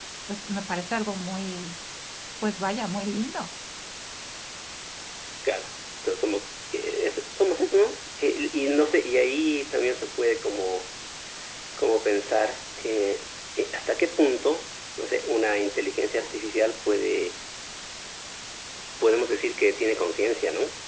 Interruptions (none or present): none